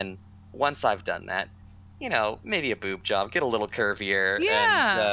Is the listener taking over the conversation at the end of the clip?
Yes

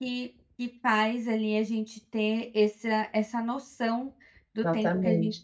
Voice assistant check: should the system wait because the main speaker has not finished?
Yes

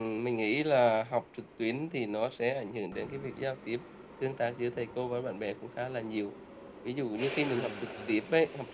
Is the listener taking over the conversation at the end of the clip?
No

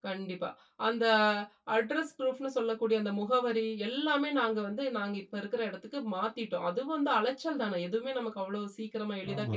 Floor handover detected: Yes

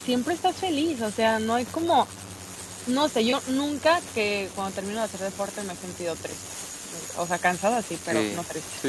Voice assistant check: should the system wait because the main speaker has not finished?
No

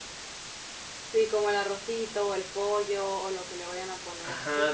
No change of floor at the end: No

